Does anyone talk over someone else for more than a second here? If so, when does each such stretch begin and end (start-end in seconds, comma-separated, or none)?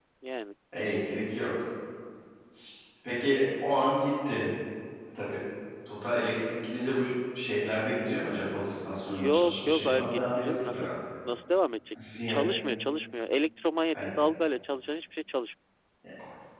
9.1-10.9